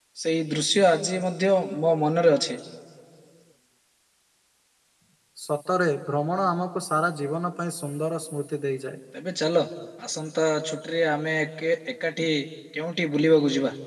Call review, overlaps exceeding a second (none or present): none